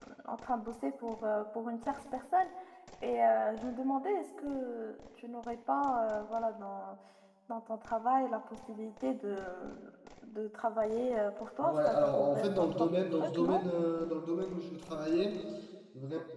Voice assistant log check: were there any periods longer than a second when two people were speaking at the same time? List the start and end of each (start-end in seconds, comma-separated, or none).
11.6-13.6